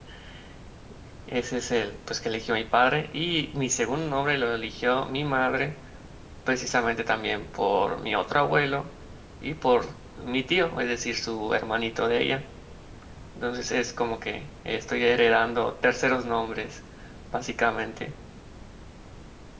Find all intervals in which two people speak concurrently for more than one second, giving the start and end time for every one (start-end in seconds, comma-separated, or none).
none